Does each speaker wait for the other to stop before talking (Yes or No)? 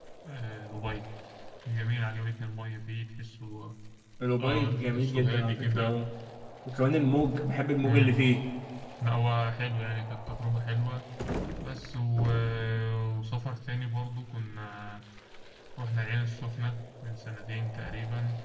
No